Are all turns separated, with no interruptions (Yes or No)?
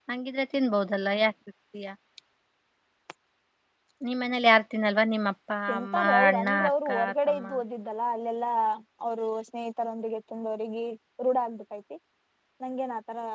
No